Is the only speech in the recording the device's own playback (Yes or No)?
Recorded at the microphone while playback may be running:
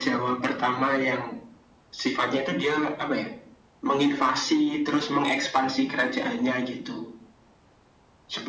Yes